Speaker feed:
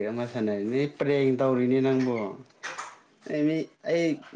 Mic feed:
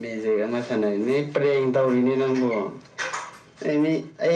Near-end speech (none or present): none